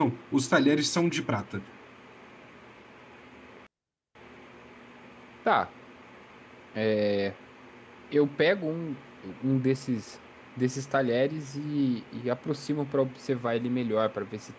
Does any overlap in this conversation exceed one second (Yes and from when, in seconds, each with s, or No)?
No